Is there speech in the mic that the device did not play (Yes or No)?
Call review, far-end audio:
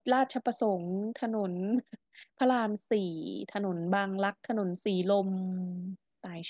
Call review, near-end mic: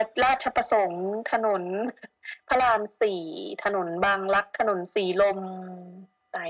No